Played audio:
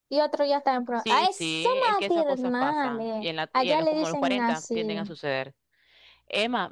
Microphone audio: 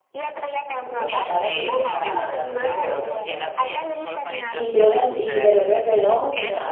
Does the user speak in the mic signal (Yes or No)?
Yes